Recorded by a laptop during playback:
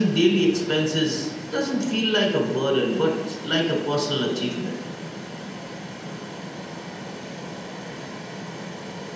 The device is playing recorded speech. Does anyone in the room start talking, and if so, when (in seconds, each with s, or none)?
none